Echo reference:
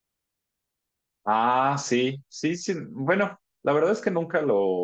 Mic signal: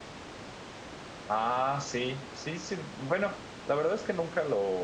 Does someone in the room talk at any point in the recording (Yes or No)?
No